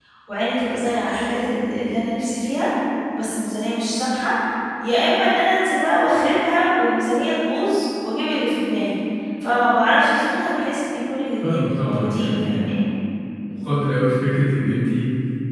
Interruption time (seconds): 11.4 s

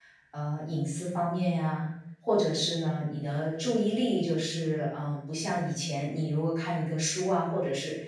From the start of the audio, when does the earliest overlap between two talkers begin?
none

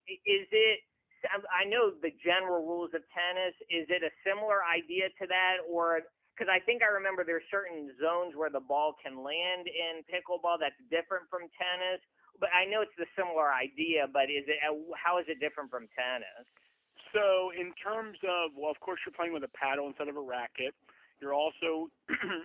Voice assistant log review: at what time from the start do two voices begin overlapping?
none

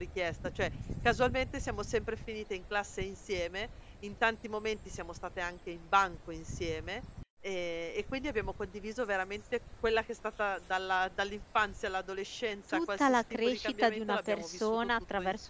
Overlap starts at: 12.7 s

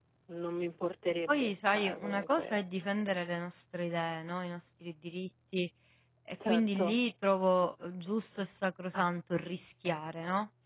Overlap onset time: 1.3 s

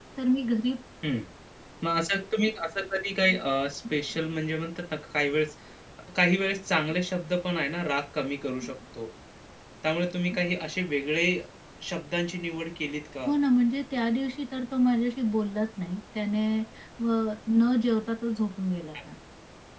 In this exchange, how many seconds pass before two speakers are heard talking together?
none

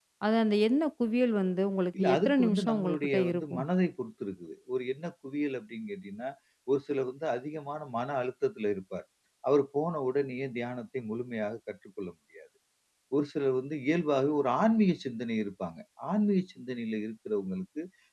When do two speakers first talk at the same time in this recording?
1.9 s

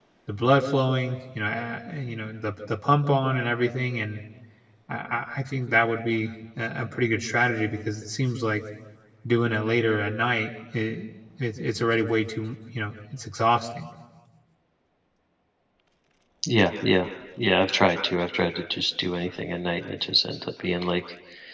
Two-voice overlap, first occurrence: none

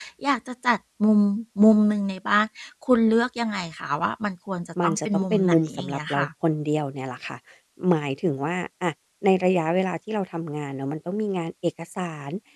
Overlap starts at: 4.8 s

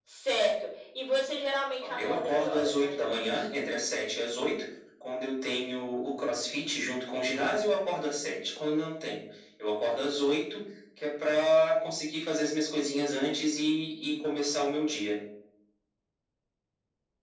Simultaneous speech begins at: 1.8 s

